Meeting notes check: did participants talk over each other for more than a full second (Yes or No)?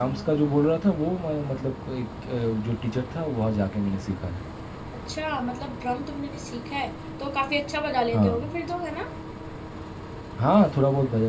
No